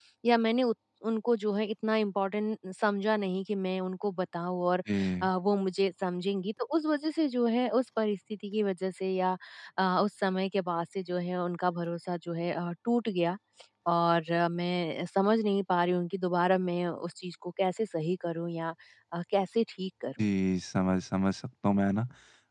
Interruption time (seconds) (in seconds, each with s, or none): none